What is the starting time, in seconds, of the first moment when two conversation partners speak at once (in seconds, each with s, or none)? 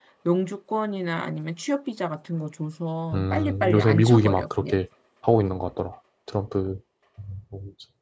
3.1 s